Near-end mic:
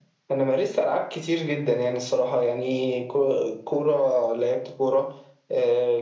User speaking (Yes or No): No